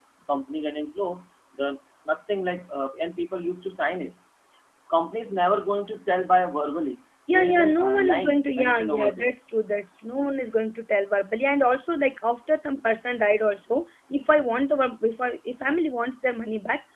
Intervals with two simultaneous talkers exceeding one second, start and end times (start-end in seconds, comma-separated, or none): 7.3-9.3